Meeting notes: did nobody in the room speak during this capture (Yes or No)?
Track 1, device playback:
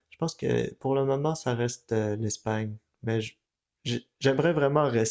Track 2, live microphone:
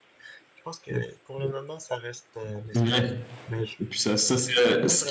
No